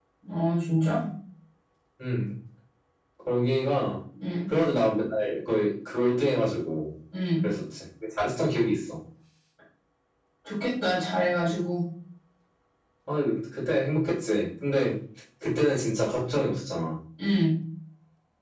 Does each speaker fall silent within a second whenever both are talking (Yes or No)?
Yes